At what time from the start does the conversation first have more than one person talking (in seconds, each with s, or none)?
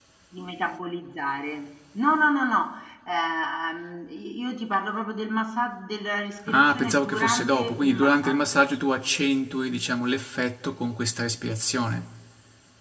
6.4 s